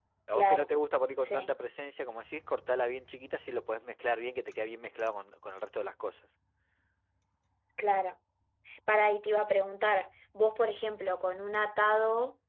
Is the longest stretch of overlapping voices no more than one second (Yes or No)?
Yes